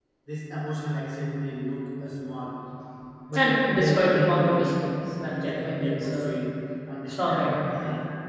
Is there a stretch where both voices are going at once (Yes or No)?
Yes